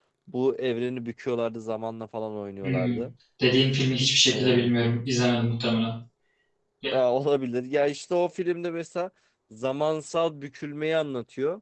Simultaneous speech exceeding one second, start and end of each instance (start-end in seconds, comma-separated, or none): none